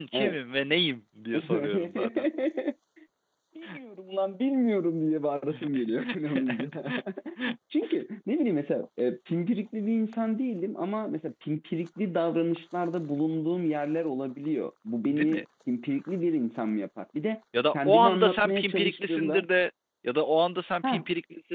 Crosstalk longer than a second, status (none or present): present